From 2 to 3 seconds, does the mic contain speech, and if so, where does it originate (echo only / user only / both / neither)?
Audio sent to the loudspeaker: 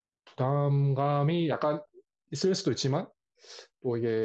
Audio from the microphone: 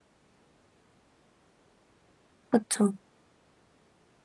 user only